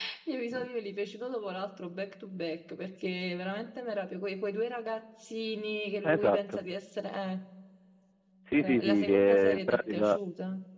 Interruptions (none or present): present